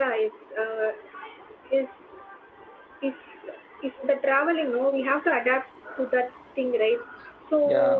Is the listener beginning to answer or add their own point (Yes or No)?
No